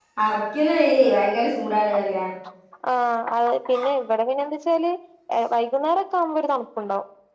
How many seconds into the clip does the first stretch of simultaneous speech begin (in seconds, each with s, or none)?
none